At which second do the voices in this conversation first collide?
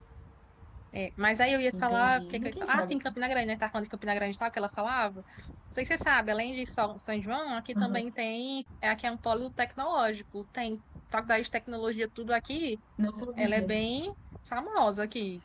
1.7 s

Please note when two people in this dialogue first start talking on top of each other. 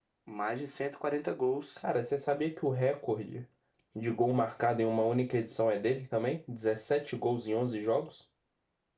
none

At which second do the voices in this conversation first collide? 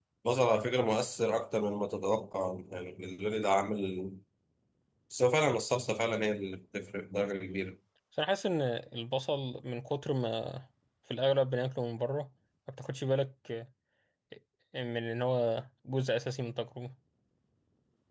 none

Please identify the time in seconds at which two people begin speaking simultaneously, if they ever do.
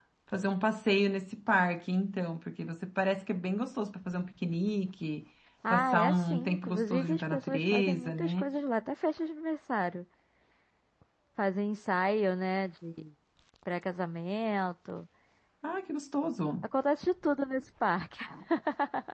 5.6 s

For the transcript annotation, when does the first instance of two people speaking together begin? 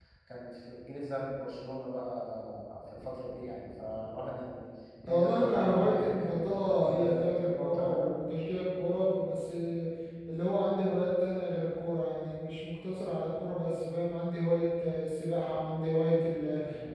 5.1 s

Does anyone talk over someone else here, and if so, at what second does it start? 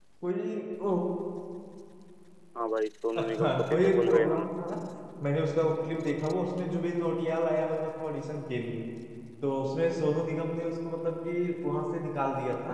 3.2 s

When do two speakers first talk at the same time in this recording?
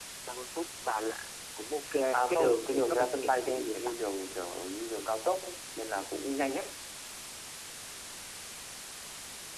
2.3 s

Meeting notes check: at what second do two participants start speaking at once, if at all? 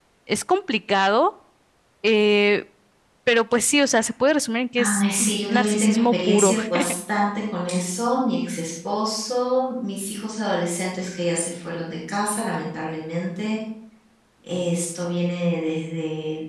4.8 s

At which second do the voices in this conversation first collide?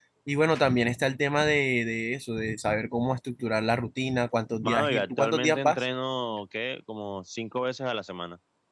4.6 s

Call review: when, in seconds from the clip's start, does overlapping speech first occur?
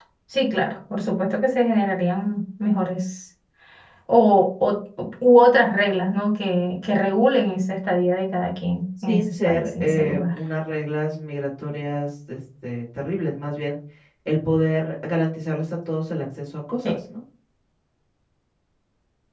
9.1 s

